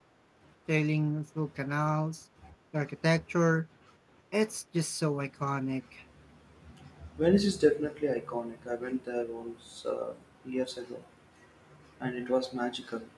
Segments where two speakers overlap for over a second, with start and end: none

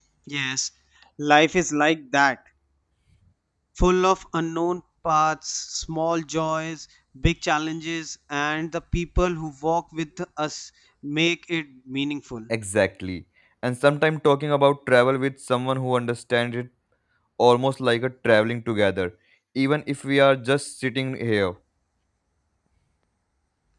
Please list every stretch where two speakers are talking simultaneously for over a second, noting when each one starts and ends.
none

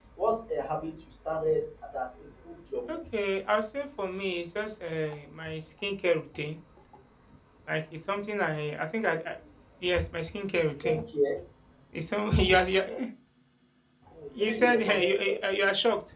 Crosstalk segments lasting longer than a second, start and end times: 14.3-15.6

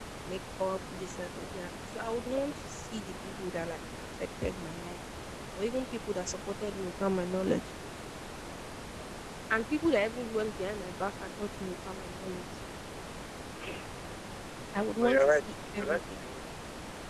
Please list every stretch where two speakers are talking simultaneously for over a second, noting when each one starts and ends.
15.0-16.2

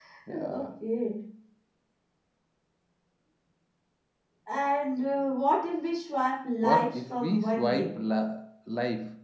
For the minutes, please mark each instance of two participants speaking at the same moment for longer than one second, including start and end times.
6.6-7.9

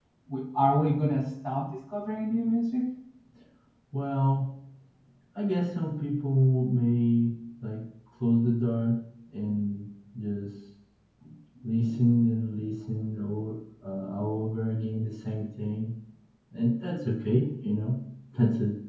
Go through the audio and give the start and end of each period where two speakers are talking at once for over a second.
none

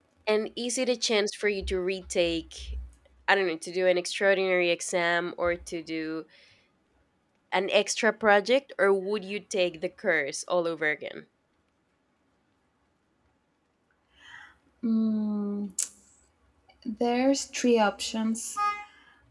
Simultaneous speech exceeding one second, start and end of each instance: none

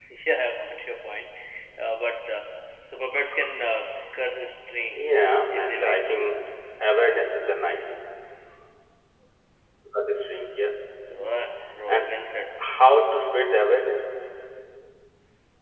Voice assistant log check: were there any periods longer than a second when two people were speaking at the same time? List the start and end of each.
4.9-6.2

